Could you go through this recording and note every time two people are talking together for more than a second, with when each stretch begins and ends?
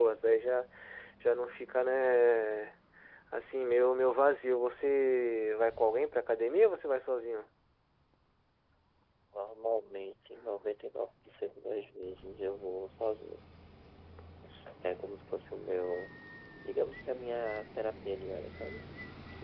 none

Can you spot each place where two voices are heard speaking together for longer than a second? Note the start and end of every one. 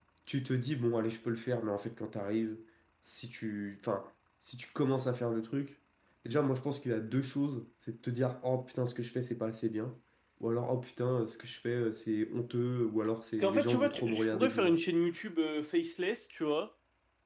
13.4-14.8

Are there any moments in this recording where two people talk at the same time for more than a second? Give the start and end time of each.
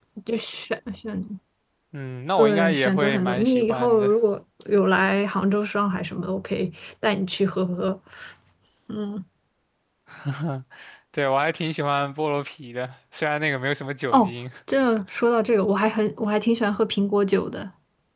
2.4-4.1

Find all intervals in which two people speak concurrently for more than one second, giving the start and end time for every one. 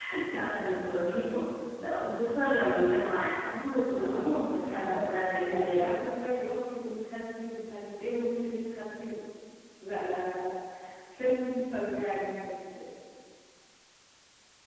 4.0-5.9

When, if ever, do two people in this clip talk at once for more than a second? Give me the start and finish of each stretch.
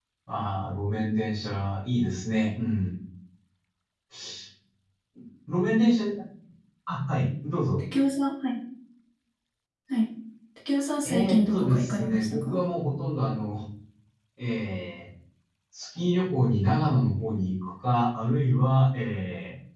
11.0-12.6

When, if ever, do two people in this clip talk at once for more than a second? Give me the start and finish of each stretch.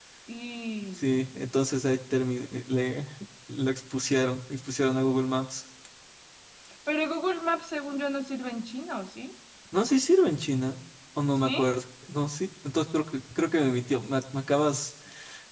none

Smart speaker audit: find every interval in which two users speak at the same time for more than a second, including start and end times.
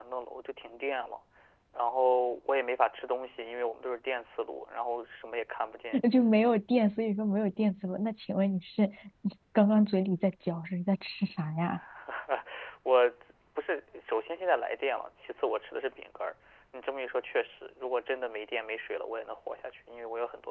none

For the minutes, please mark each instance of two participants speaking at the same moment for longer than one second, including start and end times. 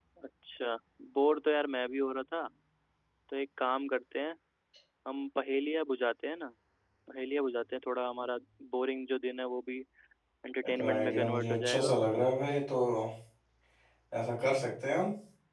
10.6-11.9

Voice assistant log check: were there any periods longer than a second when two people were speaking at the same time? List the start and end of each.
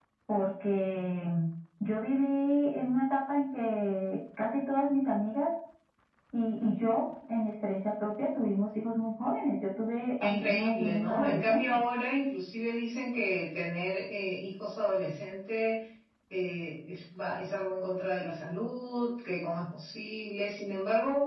10.2-11.8

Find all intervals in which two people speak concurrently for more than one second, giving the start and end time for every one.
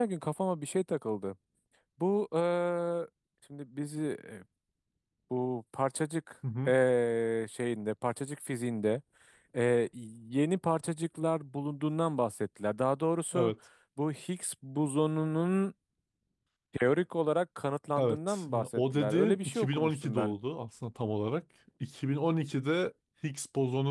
18.0-20.3

